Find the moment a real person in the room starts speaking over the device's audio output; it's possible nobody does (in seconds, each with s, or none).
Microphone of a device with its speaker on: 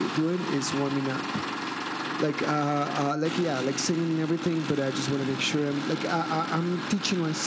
none